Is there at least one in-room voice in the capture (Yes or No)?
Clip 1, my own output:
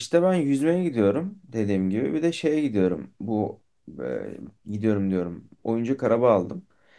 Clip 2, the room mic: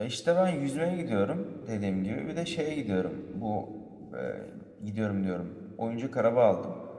No